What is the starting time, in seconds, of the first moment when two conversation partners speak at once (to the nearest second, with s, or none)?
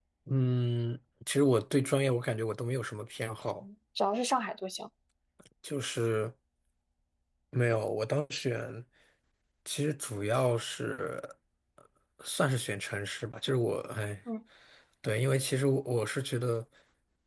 none